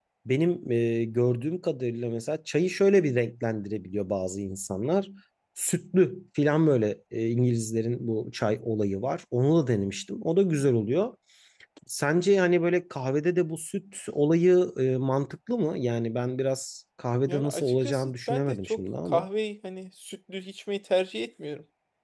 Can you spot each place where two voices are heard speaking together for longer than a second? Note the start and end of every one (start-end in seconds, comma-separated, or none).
17.3-19.2